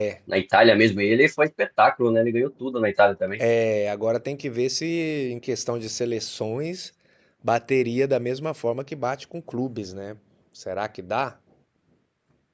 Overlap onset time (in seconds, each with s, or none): none